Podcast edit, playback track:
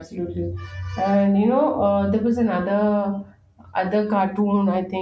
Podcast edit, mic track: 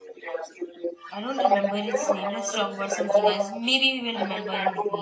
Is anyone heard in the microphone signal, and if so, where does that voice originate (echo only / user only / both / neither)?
both